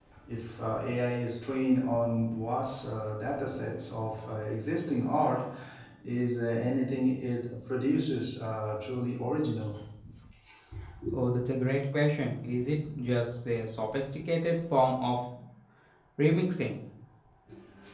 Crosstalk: none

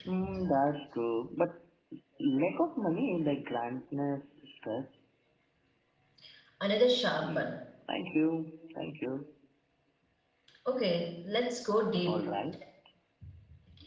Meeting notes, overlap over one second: none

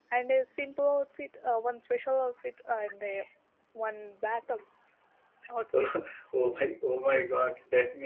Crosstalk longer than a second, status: none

